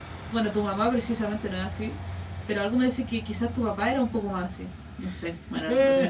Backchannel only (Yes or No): No